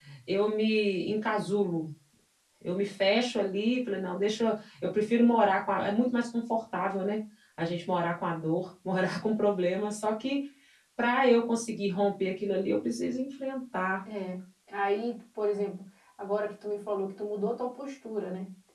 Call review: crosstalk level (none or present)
none